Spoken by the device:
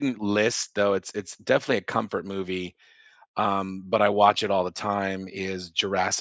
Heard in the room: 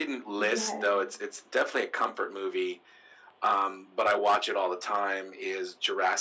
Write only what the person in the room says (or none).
Yes.